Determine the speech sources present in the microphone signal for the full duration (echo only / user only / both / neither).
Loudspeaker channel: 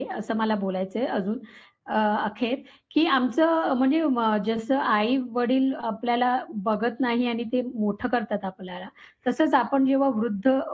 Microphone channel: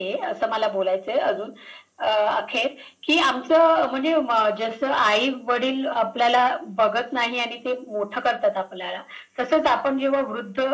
echo only